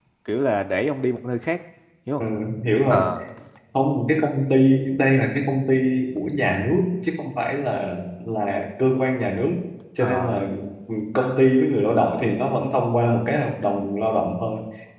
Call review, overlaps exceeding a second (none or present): none